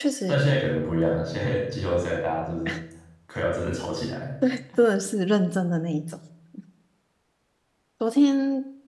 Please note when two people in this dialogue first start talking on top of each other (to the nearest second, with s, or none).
none